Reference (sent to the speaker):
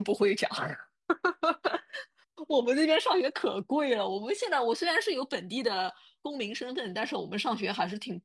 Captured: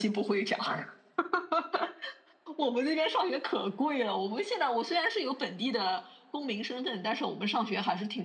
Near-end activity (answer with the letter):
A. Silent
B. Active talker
A